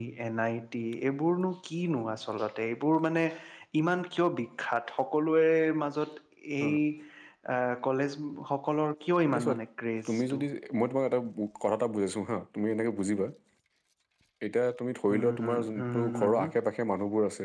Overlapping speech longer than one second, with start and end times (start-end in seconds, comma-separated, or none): 15.1-16.5